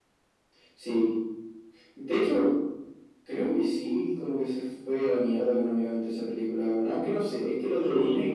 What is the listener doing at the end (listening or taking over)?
listening